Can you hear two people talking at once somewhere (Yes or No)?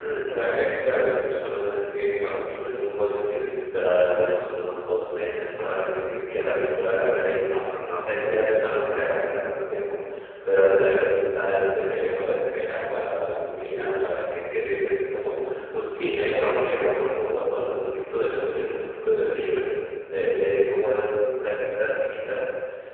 No